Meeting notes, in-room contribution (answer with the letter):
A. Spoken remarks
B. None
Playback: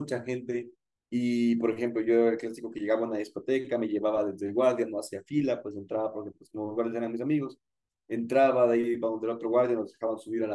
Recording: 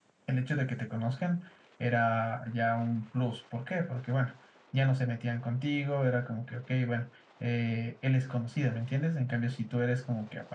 A